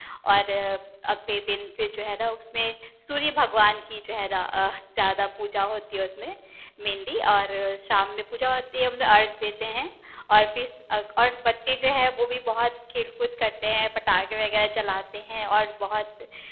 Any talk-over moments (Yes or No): No